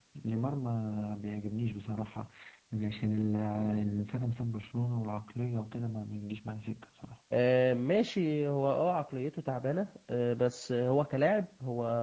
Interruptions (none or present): none